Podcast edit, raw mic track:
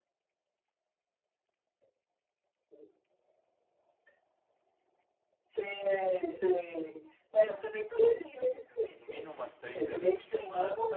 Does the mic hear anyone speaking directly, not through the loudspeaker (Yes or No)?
Yes